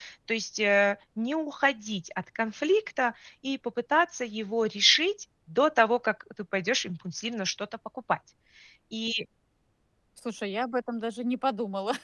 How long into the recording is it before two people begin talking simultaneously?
none

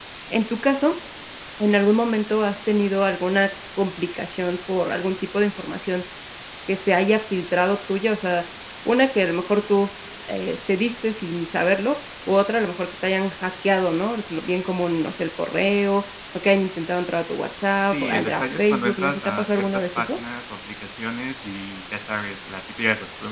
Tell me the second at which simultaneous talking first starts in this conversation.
17.9 s

